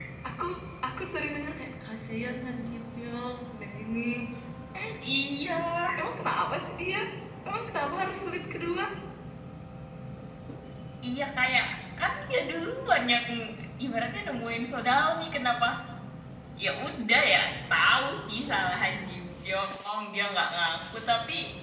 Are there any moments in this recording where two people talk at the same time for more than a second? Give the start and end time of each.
none

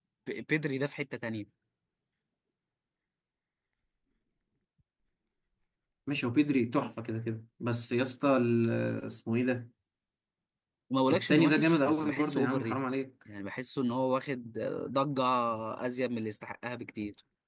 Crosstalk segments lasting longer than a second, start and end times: 11.1-12.8

